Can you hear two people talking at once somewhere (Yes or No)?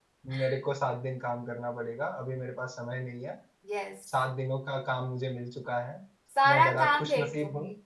Yes